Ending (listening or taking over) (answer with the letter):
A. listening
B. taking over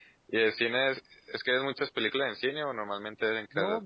B